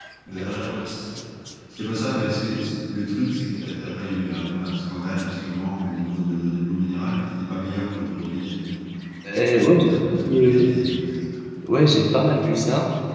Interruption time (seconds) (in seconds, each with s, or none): 9.5 s